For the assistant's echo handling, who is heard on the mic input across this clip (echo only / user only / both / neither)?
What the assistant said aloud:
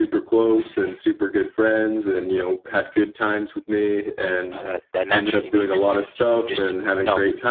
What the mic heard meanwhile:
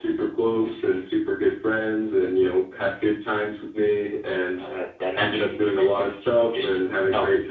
echo only